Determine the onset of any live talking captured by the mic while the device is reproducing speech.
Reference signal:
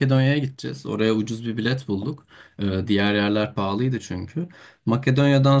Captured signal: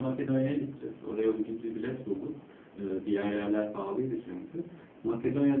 none

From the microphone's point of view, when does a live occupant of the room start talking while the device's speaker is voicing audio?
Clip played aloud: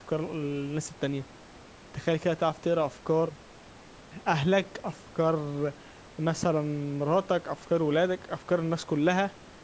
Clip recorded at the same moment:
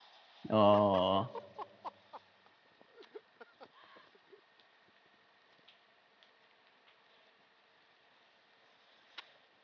1 s

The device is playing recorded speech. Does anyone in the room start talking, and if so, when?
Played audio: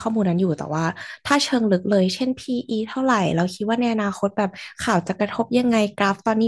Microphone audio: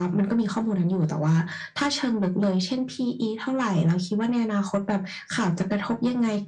none

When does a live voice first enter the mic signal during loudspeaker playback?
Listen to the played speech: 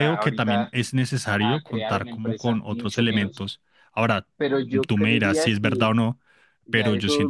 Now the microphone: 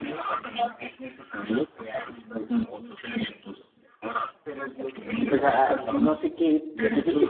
5 s

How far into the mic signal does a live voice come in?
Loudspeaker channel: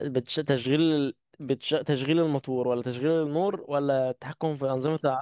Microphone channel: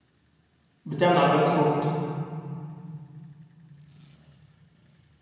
1 s

